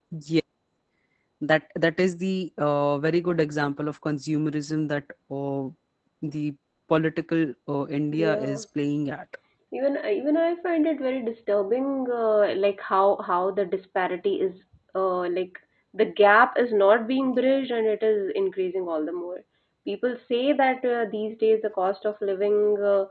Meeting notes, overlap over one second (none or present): none